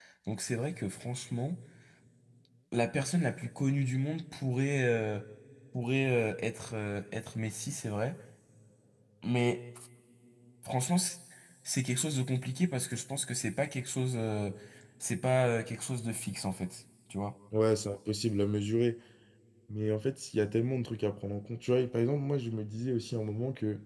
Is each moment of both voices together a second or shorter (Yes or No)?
Yes